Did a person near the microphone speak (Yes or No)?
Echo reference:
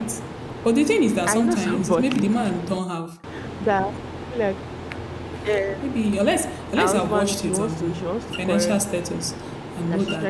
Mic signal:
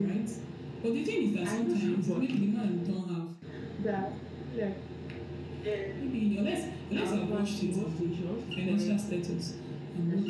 No